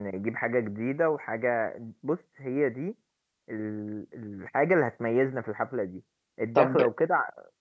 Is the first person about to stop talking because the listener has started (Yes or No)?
No